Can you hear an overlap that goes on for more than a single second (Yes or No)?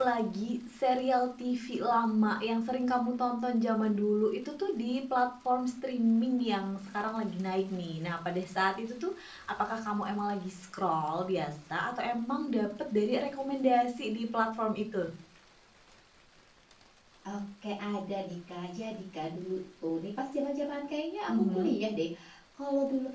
No